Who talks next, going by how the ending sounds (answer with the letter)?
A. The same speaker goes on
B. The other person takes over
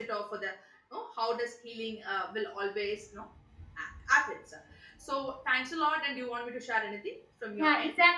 B